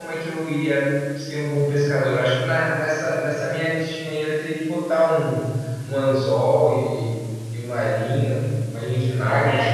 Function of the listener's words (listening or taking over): taking over